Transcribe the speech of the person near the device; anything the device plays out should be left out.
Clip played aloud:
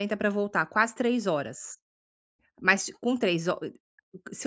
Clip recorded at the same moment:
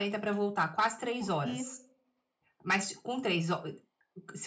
porque

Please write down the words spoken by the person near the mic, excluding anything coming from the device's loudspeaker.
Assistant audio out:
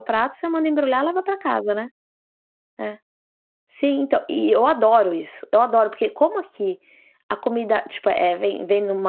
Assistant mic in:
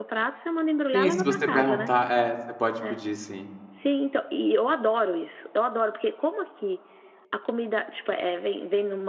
Sim, se você perguntar é, você pode pedir sim.

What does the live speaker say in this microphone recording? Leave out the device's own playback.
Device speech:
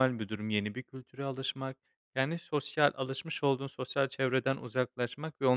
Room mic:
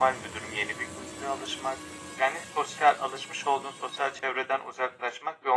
none

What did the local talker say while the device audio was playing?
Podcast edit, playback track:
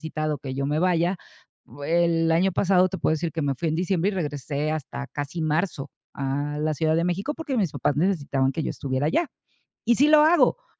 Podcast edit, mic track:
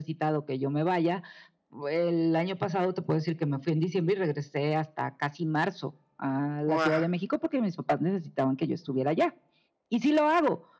Guau.

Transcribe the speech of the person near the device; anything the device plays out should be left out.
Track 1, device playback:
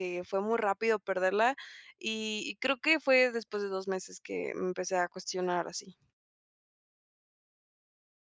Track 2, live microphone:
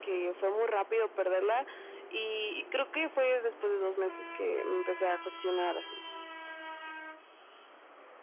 none

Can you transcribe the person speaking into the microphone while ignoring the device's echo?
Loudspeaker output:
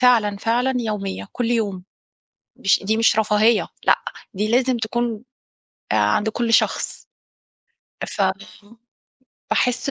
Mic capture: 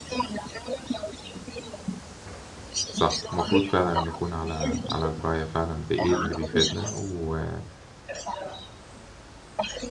صح المفروض فعلًا نكون على على دراية فعلًا بإيه اللي بيفيدنا، وبالتالي

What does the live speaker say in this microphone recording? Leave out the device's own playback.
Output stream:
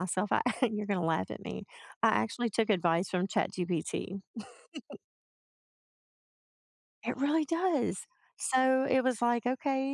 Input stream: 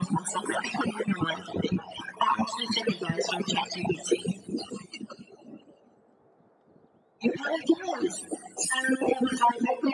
none

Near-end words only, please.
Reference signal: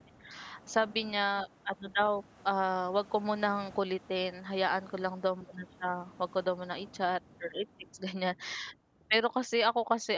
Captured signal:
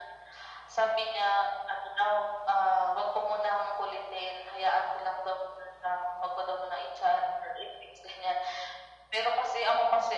none

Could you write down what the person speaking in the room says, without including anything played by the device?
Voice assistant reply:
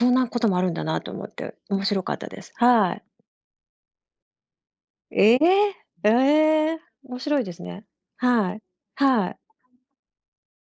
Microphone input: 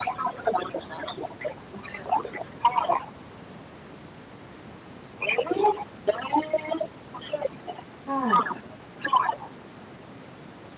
はい。

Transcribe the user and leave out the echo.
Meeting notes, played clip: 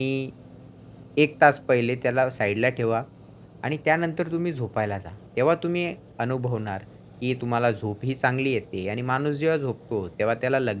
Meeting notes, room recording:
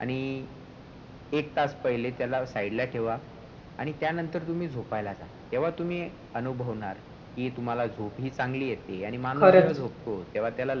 खरंच.

